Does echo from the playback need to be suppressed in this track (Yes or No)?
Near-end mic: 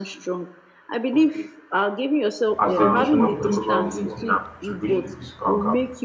Yes